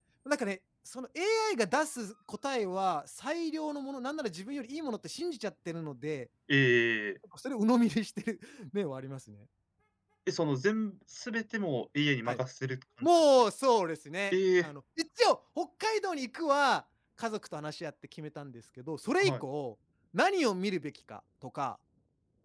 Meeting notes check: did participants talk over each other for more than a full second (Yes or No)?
No